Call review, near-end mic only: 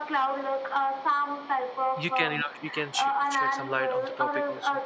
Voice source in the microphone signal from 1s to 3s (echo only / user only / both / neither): both